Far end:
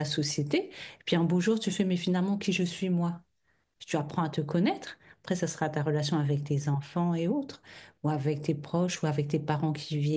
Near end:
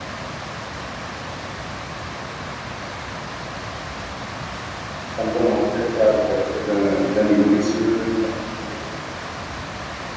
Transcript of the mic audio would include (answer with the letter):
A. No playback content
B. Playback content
A